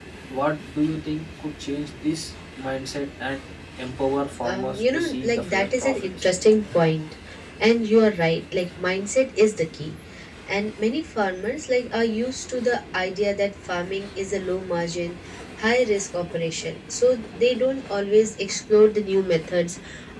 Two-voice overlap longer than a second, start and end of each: 4.4-6.3

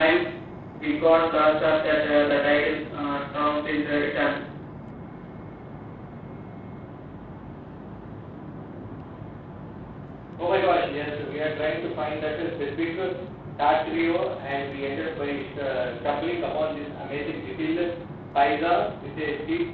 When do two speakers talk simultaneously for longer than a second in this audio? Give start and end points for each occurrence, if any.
none

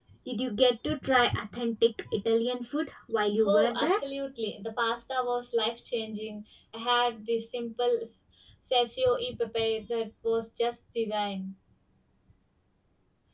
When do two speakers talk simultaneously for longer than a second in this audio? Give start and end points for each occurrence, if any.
none

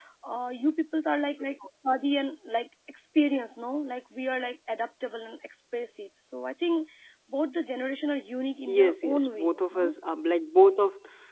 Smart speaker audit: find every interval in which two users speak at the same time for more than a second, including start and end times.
8.7-9.9

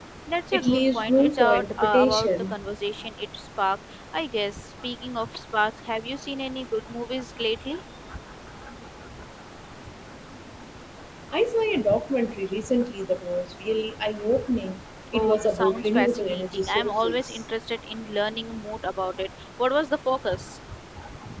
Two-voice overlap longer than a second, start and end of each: 0.5-2.5, 15.1-17.4

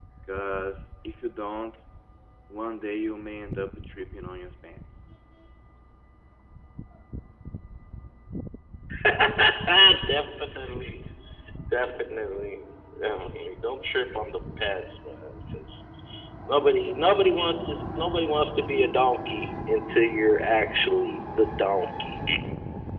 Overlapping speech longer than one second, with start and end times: none

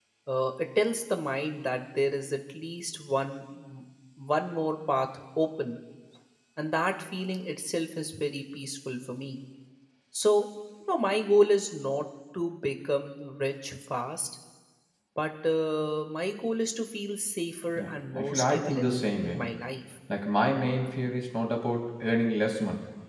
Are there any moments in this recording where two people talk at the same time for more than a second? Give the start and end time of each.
17.7-19.4

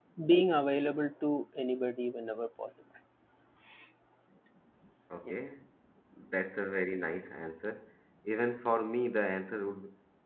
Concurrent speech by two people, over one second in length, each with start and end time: none

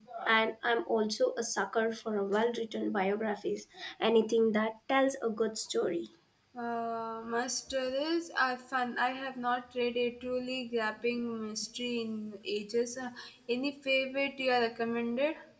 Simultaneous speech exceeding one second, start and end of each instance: none

